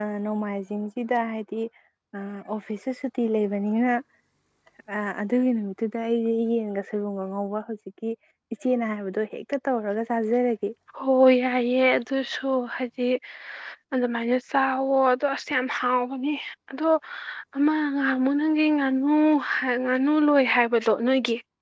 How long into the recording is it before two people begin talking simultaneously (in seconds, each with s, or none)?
none